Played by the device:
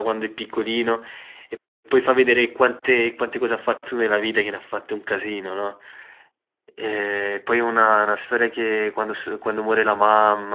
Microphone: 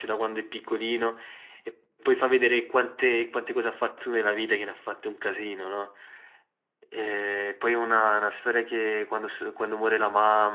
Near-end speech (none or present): none